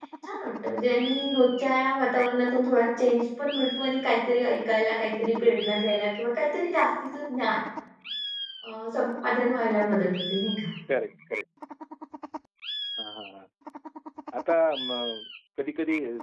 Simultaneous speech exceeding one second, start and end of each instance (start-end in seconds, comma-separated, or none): none